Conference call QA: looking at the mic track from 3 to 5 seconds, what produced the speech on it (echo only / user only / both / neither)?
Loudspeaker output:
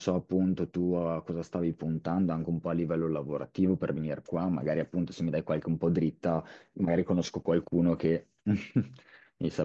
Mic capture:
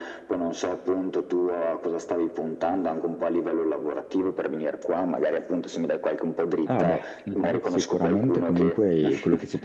echo only